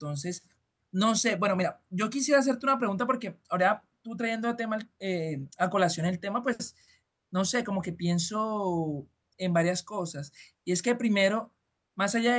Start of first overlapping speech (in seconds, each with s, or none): none